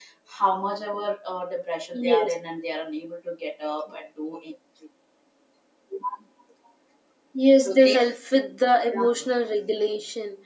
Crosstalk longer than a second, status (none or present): none